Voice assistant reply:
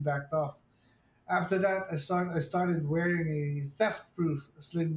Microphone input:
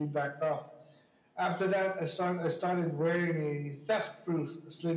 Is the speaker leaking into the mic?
Yes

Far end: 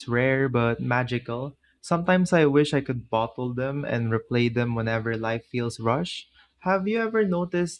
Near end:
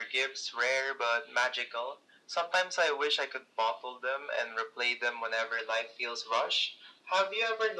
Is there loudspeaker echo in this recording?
Yes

